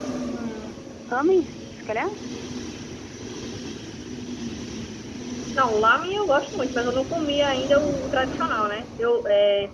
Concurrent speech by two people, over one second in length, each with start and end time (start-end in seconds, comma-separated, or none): none